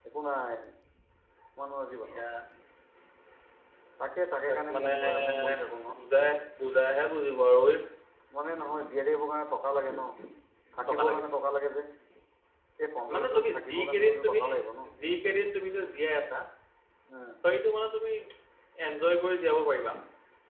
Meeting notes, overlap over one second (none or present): present